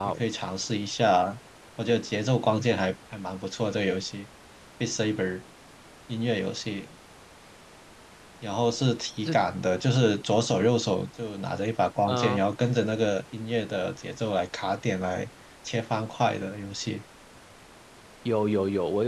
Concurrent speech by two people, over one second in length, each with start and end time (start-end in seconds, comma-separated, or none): none